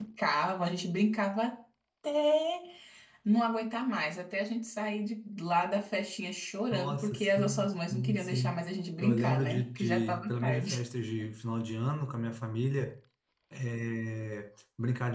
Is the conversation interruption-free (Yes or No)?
No